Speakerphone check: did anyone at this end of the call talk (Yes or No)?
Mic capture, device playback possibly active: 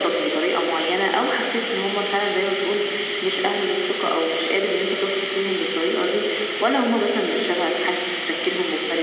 No